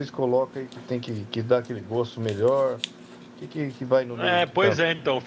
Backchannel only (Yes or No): No